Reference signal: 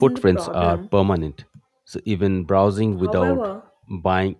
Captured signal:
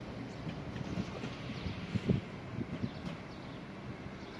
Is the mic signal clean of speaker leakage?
Yes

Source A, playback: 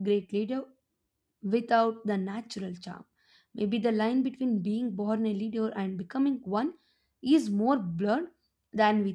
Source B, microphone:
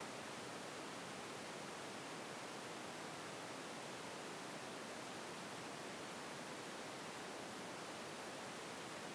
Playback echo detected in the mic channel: No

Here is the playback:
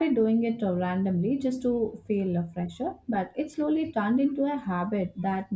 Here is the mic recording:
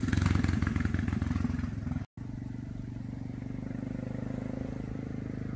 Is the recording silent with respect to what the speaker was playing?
Yes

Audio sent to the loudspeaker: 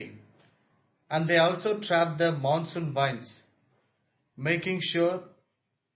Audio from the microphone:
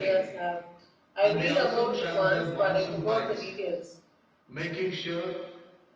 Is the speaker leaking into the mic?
Yes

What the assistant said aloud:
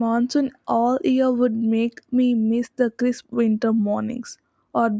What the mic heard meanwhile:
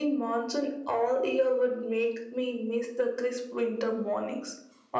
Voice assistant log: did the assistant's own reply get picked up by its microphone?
Yes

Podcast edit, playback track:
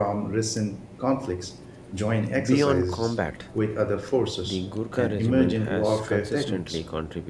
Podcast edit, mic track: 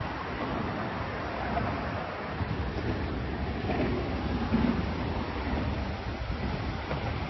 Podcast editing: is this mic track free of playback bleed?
Yes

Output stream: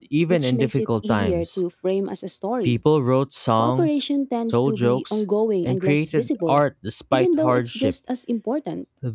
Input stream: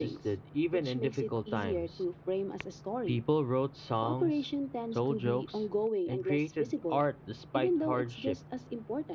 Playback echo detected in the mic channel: Yes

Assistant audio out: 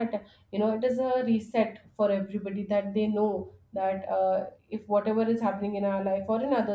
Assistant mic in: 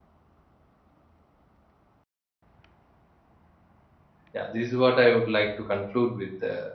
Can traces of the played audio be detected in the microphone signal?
No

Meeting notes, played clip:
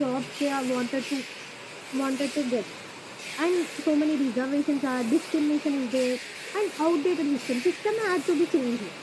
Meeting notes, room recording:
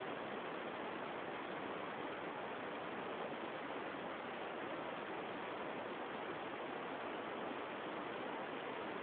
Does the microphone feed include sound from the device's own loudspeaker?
No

